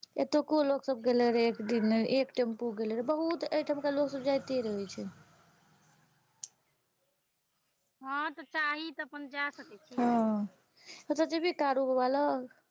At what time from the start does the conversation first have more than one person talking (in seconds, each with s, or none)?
none